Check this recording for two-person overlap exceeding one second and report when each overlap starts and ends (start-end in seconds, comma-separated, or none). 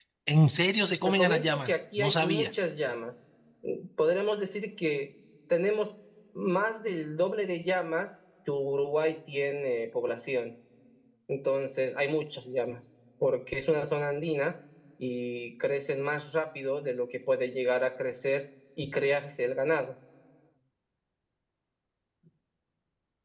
1.0-2.5